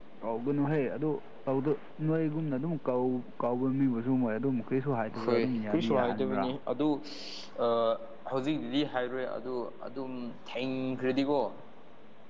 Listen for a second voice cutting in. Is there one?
Yes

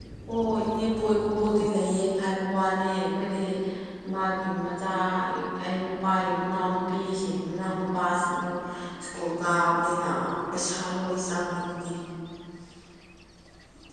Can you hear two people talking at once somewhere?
No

